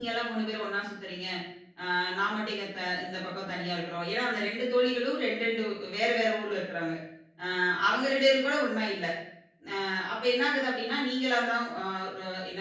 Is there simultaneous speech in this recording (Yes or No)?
No